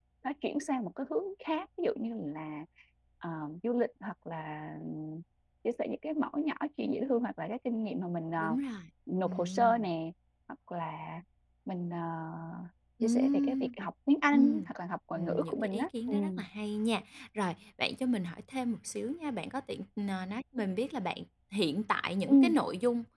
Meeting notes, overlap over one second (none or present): present